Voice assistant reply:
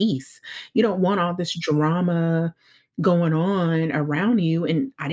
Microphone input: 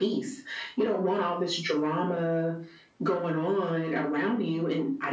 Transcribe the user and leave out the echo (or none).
none